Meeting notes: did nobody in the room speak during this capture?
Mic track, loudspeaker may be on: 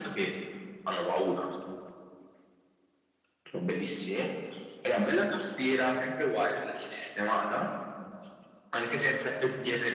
Yes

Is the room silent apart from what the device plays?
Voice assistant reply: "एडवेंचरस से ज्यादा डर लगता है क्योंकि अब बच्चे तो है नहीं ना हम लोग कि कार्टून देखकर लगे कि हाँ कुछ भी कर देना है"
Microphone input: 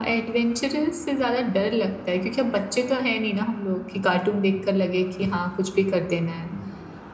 Yes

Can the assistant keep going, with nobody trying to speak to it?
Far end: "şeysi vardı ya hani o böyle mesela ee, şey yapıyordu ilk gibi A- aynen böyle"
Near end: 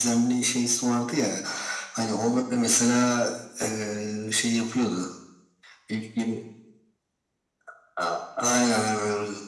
Yes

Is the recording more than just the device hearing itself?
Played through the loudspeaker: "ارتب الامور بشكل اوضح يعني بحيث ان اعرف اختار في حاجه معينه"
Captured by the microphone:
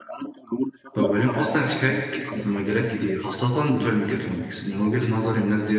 Yes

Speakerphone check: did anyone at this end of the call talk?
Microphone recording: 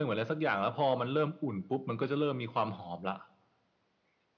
No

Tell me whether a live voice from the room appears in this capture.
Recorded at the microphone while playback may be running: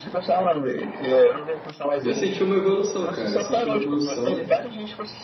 Yes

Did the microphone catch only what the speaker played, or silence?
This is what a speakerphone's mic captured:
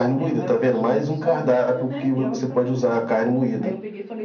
No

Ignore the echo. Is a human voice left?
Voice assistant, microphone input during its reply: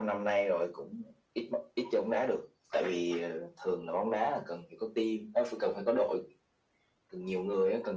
No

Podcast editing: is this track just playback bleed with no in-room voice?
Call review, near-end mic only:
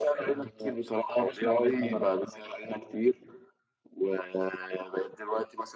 Yes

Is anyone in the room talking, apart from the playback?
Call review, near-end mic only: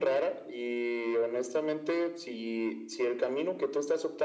No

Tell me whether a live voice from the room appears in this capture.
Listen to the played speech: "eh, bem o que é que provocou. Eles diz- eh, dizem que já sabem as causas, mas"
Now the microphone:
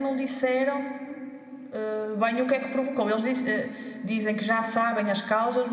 No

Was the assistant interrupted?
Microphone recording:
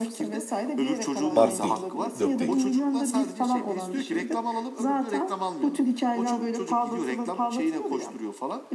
Yes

